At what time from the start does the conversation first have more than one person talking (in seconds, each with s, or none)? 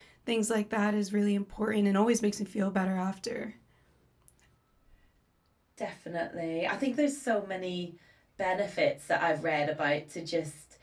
none